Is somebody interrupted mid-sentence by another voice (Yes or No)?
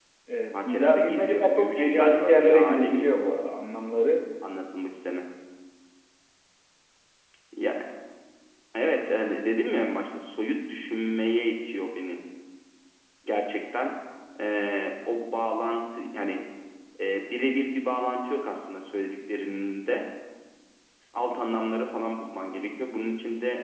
Yes